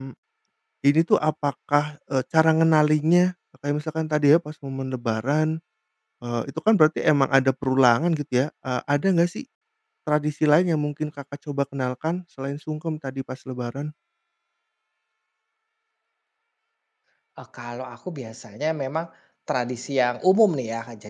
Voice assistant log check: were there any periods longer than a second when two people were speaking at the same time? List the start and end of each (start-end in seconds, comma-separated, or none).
none